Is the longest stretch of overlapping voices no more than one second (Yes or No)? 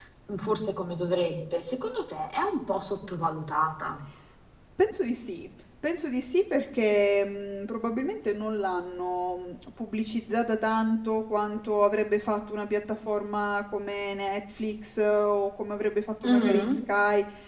Yes